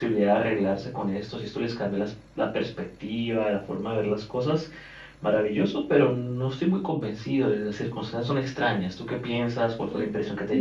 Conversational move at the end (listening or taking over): taking over